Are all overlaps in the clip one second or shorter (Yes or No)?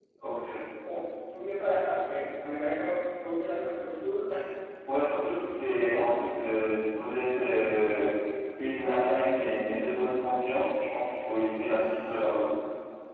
Yes